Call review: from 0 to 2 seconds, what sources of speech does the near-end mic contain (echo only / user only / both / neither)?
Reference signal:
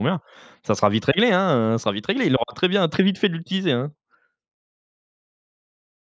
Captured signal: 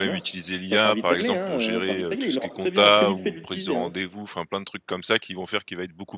both